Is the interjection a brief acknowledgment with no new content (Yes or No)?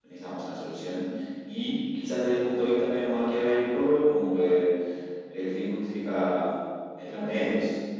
Yes